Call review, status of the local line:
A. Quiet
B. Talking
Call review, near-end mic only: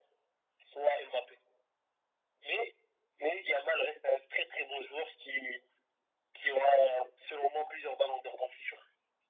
A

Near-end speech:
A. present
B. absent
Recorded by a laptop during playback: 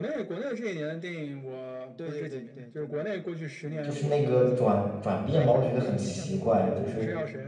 A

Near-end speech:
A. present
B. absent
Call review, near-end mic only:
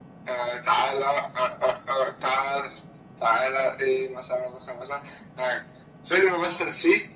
B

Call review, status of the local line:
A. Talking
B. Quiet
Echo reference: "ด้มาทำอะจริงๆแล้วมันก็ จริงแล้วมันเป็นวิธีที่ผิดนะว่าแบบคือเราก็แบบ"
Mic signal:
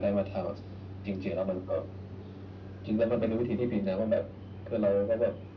B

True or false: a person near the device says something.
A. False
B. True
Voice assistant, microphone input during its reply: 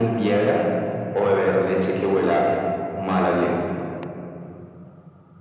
A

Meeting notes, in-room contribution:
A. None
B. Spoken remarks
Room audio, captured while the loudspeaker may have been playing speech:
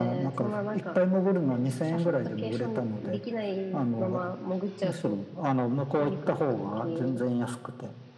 A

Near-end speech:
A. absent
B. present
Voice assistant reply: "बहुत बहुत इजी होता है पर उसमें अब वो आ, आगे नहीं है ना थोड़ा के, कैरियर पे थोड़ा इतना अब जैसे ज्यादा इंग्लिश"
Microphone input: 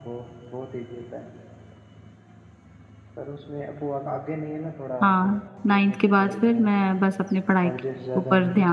B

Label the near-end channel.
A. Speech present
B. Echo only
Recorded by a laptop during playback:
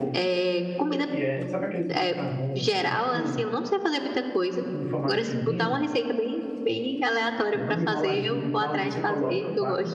A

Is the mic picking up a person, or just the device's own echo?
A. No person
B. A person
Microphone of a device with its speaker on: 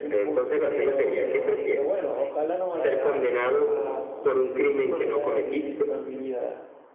B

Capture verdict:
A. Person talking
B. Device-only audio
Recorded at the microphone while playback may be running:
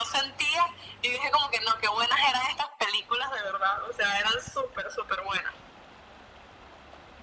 B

